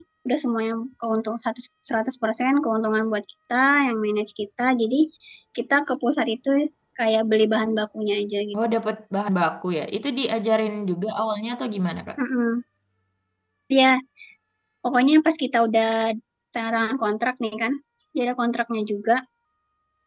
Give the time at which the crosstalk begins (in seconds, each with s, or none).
none